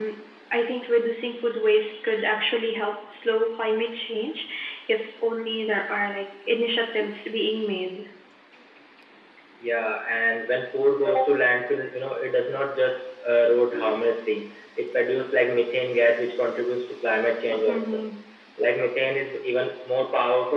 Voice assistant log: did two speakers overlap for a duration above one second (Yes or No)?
No